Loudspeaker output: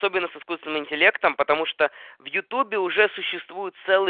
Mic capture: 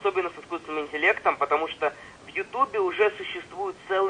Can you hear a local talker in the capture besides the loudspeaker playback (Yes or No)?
No